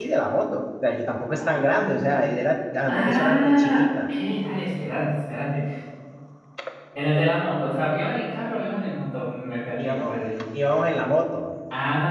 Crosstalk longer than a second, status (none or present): present